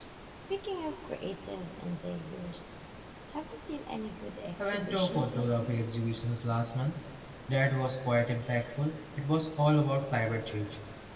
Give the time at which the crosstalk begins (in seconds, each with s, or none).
4.6 s